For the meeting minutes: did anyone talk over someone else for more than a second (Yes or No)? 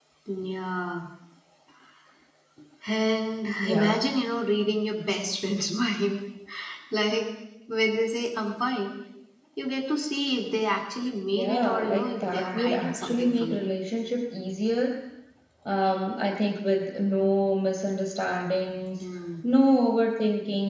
Yes